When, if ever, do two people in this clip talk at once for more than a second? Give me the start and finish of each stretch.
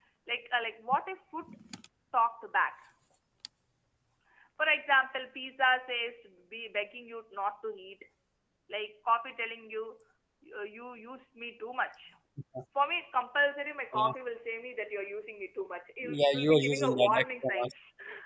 16.0-17.7

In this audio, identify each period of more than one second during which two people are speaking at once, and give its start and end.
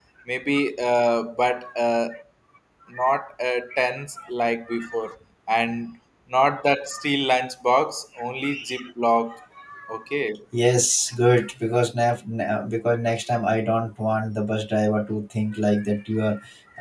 none

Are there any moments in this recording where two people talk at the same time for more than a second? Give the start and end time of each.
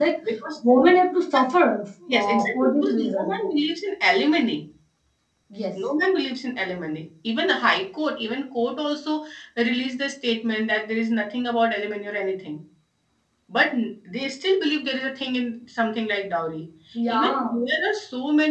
2.1-3.4

